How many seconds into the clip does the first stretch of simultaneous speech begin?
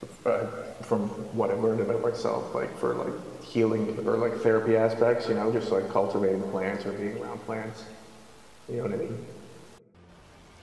none

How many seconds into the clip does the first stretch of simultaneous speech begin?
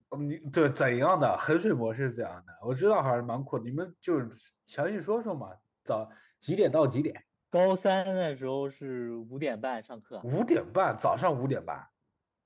none

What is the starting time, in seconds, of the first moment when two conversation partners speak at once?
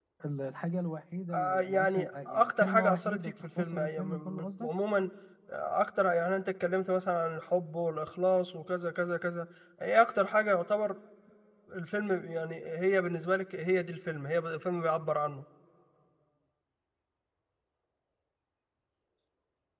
1.3 s

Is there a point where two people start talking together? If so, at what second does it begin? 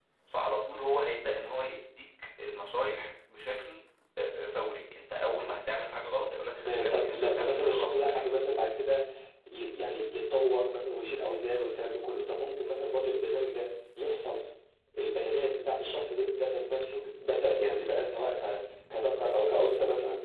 6.6 s

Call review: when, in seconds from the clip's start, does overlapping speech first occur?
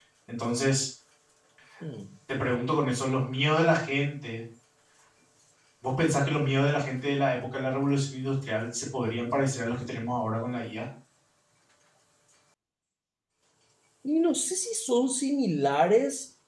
none

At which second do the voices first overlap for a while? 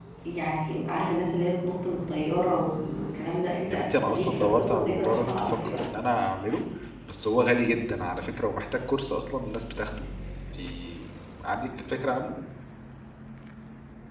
3.7 s

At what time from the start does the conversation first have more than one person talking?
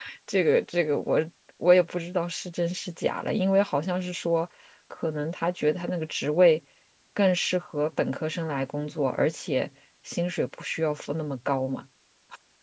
none

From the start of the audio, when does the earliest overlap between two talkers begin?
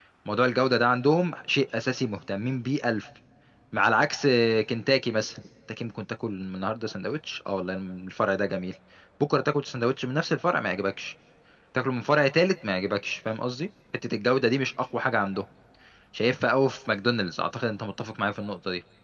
none

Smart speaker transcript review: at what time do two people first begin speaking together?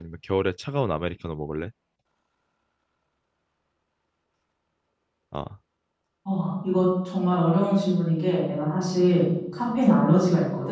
none

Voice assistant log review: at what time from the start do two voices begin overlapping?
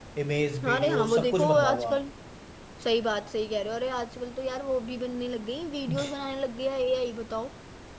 0.7 s

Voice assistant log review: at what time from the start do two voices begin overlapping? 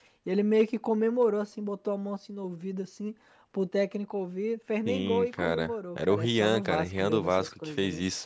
4.8 s

